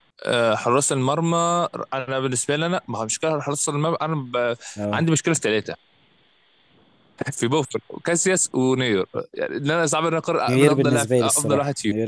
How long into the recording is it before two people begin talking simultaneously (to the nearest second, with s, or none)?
10 s